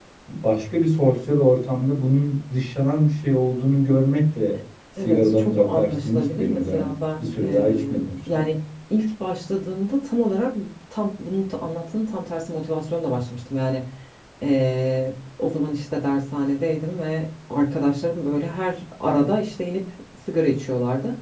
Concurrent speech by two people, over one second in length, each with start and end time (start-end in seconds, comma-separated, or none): 5.0-8.4